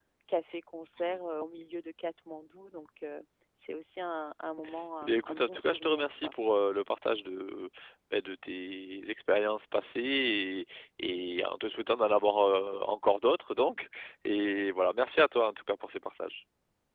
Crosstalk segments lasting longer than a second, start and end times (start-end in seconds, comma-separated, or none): 5.0-6.3